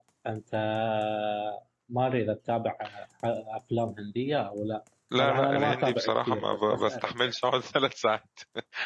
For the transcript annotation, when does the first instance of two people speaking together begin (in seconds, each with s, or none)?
5.1 s